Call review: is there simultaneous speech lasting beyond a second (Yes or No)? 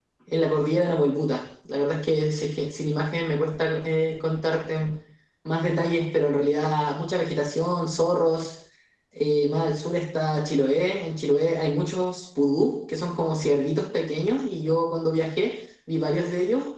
No